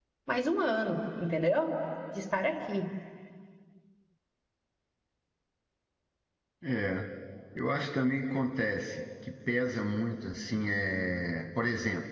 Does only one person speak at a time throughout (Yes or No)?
Yes